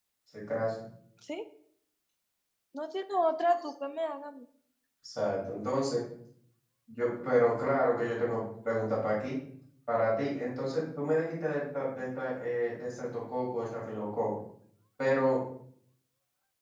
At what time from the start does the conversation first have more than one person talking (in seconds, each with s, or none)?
none